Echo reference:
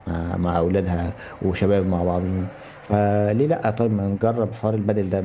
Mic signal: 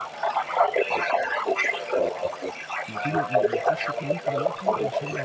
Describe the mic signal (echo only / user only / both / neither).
both